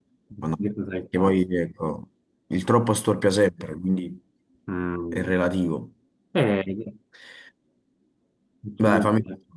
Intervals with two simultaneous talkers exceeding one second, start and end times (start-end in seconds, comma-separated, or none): none